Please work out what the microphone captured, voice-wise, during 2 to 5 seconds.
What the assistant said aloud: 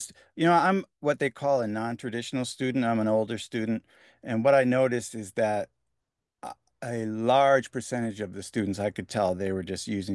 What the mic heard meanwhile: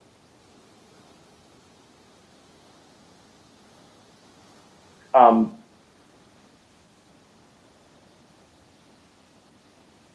neither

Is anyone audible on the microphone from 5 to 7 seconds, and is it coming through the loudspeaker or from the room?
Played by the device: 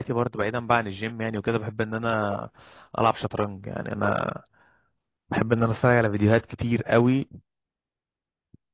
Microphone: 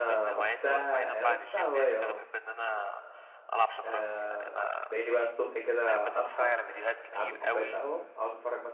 both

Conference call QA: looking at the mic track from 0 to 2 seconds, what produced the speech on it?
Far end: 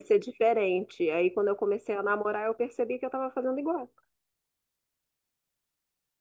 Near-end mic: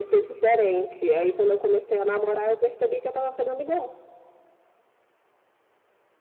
echo only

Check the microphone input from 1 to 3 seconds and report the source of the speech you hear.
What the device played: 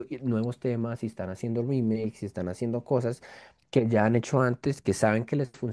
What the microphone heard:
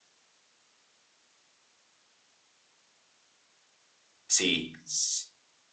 neither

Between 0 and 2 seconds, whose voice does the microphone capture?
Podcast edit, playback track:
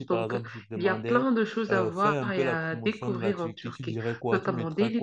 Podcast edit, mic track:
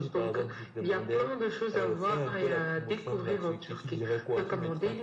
echo only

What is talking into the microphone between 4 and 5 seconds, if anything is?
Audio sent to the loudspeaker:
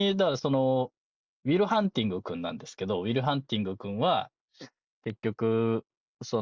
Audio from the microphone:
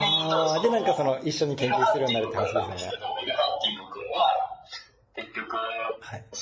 echo only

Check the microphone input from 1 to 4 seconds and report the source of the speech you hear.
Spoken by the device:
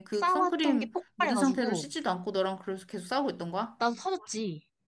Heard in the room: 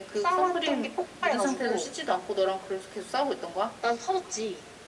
echo only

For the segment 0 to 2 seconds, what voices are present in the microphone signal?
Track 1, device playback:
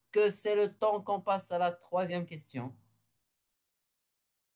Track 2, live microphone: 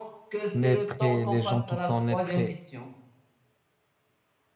both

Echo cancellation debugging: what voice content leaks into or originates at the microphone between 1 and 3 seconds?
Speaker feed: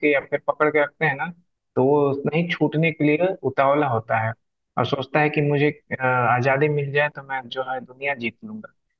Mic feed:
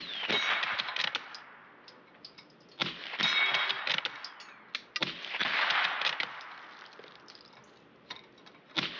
neither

